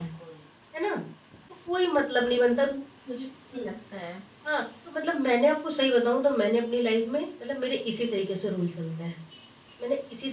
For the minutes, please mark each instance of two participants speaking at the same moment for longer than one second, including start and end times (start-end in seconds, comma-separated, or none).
none